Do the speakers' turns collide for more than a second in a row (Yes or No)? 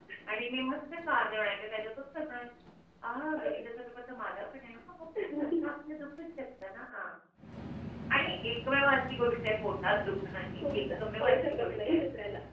Yes